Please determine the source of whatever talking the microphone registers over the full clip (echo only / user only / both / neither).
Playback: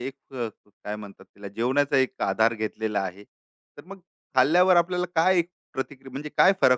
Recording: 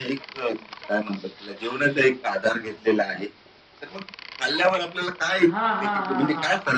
both